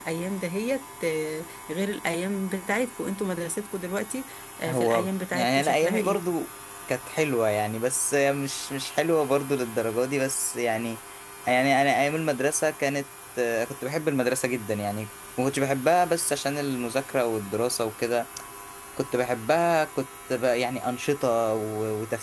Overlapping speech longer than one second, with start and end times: 4.7-6.2

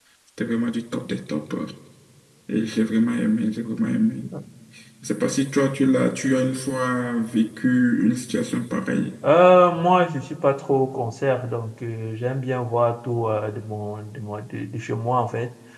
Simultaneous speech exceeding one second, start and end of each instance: none

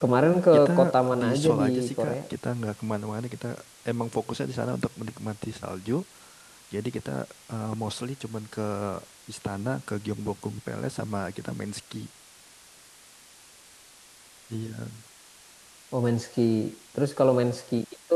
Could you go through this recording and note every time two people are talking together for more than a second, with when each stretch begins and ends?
0.5-2.1

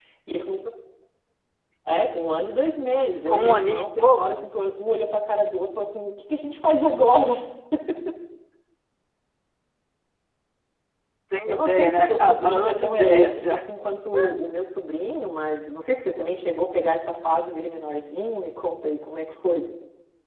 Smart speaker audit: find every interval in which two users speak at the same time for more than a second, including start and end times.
3.1-4.5, 11.5-13.6

